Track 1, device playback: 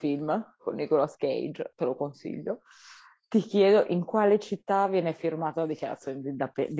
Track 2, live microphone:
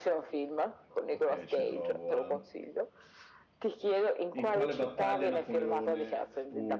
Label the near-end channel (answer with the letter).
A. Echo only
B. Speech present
B